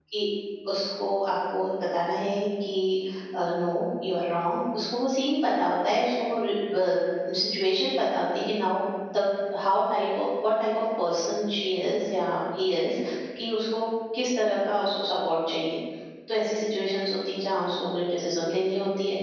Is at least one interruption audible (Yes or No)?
No